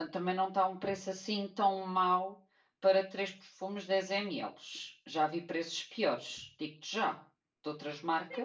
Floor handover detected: Yes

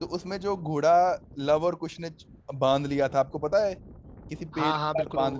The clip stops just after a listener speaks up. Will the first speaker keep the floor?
No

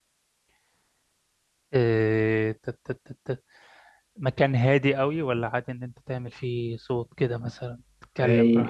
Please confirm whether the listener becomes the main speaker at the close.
Yes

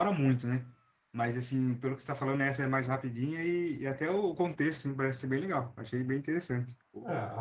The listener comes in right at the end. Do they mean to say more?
Yes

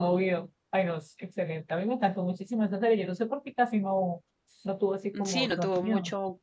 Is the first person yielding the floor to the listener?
Yes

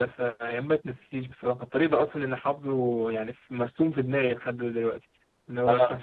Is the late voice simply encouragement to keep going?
Yes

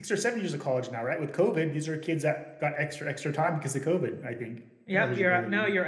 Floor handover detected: Yes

